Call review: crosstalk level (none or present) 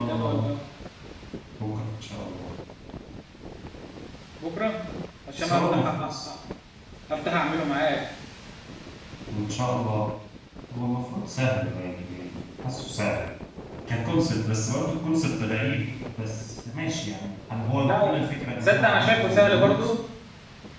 present